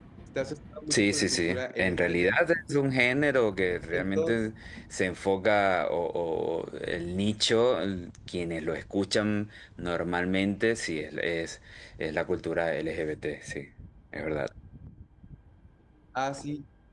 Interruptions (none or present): present